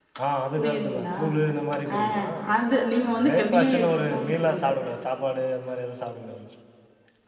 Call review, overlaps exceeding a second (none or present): present